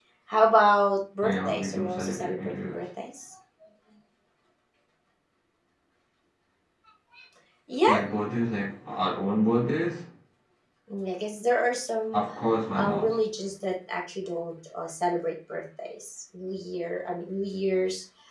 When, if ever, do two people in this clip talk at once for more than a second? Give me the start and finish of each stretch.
1.2-2.8

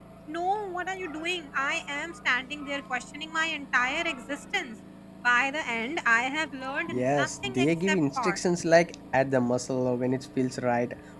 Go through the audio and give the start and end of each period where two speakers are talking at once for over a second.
6.9-8.4

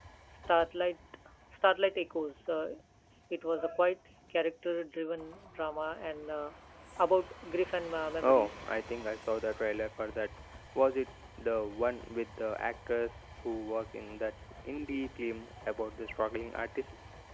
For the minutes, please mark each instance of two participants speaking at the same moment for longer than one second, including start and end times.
none

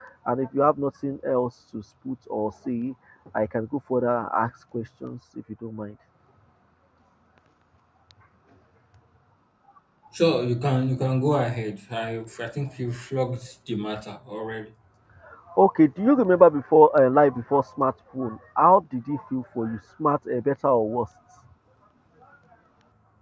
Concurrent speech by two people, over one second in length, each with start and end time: none

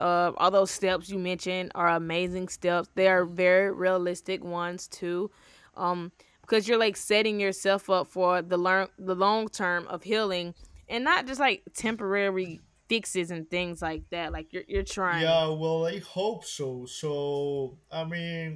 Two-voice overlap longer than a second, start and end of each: none

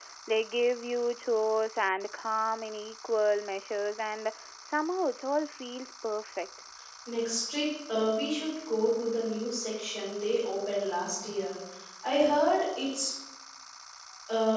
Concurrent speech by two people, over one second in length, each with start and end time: none

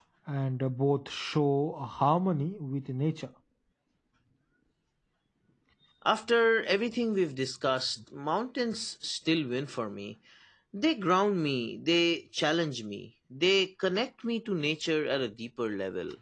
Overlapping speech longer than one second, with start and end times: none

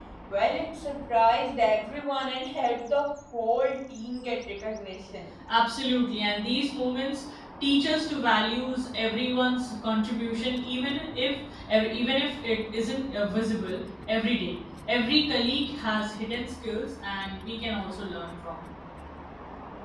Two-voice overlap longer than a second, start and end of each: none

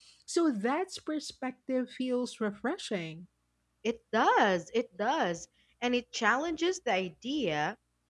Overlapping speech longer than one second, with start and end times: none

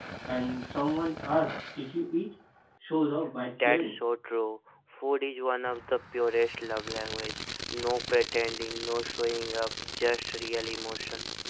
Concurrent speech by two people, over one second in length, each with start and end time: none

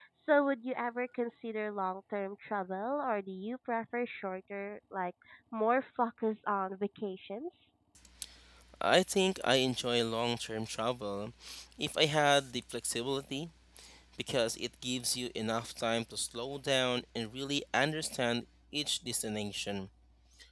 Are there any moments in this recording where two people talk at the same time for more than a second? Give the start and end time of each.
none

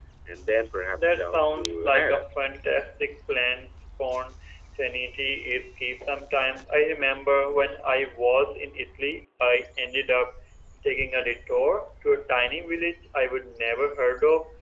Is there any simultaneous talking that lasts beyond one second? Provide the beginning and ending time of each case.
0.9-2.2

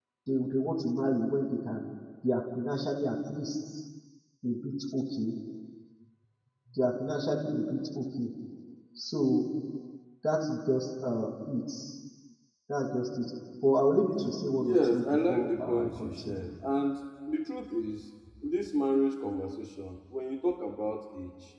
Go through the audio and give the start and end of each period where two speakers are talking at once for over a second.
14.6-16.4

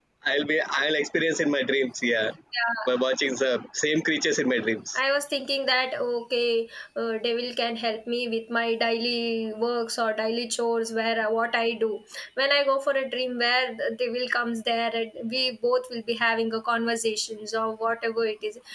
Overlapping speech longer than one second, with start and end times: none

